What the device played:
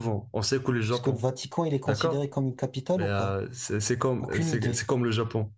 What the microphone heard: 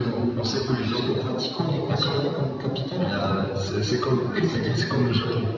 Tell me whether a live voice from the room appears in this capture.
No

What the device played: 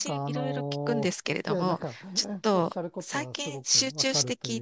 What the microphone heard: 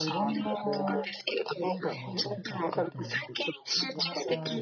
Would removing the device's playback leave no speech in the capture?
No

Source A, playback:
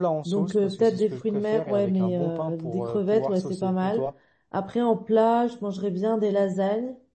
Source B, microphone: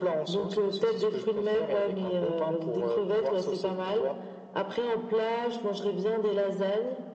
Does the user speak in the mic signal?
No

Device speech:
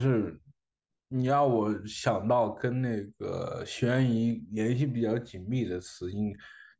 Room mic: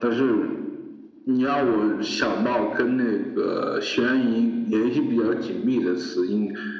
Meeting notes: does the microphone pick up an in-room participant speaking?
No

